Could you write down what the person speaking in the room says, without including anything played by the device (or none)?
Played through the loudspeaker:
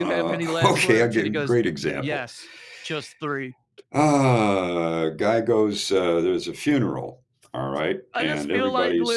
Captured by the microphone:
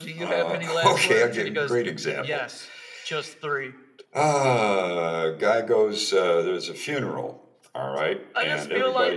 none